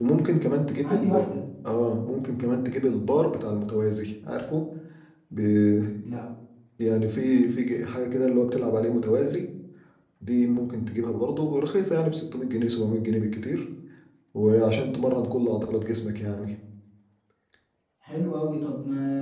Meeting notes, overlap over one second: none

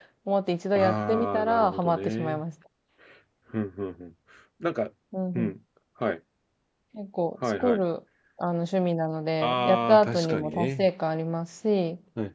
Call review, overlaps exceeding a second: present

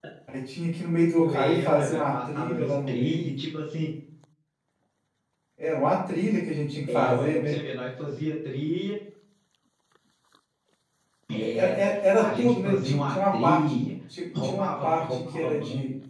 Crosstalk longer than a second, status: present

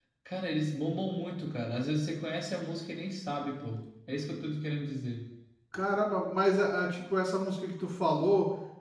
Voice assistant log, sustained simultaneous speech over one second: none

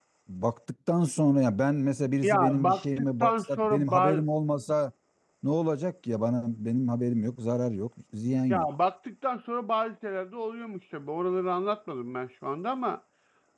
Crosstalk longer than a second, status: present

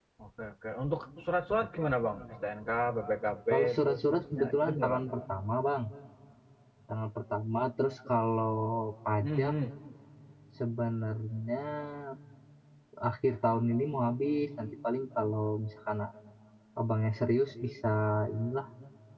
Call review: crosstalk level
present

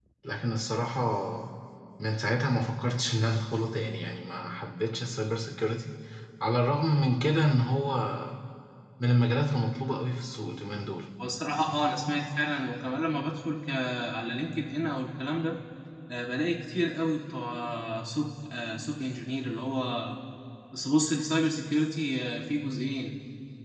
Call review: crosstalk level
none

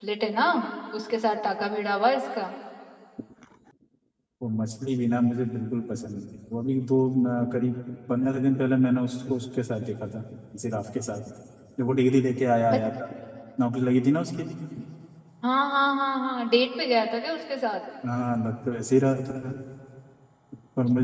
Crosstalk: none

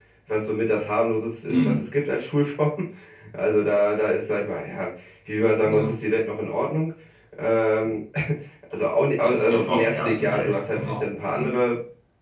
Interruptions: present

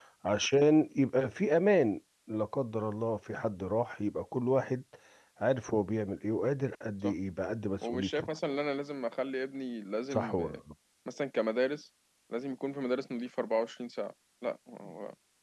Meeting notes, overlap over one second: none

